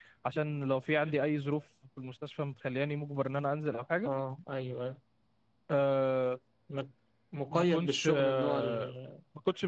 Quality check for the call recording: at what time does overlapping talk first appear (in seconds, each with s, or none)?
7.5 s